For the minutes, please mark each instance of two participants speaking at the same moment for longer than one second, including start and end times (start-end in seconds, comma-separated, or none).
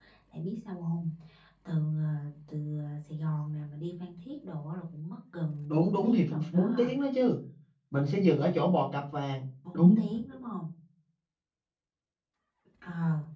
5.7-6.9